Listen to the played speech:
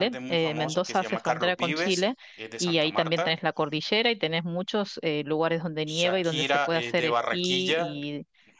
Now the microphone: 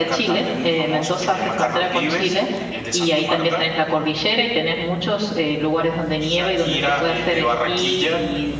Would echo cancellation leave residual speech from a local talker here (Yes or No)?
No